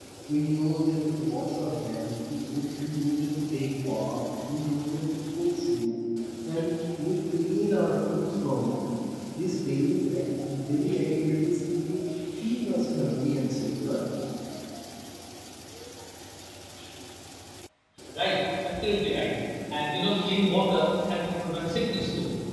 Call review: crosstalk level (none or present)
none